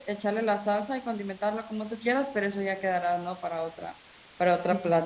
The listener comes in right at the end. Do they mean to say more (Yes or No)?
Yes